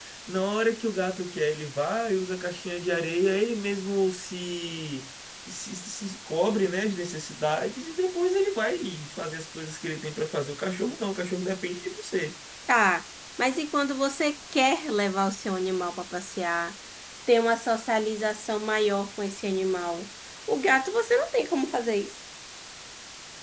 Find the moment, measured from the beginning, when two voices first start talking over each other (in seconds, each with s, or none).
none